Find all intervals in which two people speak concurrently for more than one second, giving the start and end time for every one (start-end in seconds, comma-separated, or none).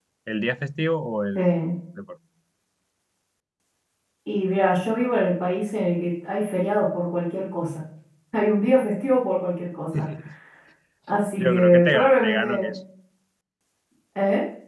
11.4-12.7